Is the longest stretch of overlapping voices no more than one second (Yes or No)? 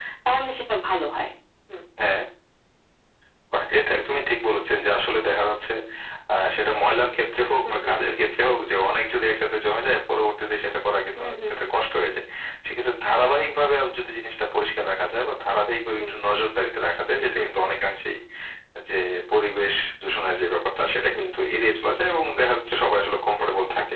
Yes